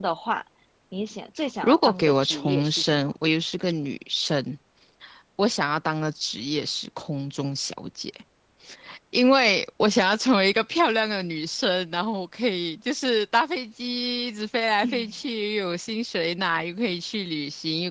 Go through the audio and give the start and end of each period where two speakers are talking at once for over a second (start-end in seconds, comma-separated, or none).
1.6-3.1